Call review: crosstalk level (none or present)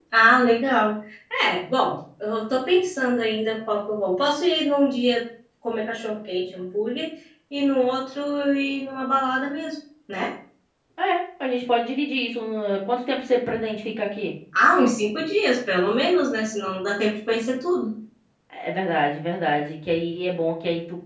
none